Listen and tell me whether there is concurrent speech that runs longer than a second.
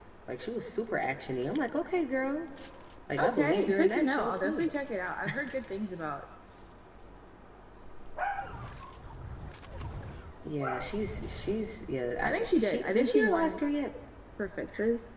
Yes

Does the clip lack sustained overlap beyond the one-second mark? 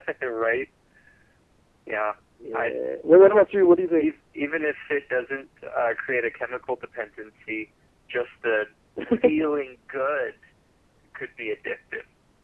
Yes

